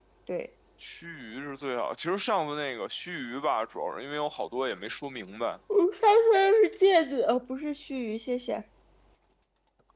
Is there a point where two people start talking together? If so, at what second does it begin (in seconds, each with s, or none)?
none